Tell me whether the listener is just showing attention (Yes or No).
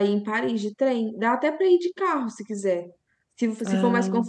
Yes